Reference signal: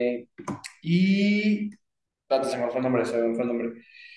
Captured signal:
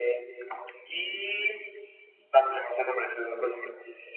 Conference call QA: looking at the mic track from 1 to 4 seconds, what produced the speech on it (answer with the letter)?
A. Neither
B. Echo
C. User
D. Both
B